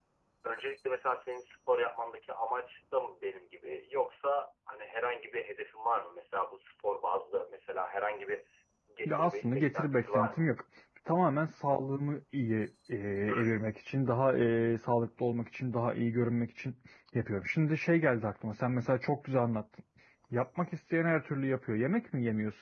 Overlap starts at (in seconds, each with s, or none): 9.0 s